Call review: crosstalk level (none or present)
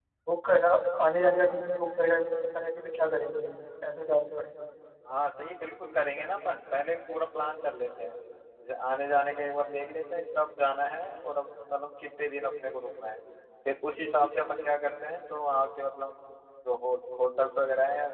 none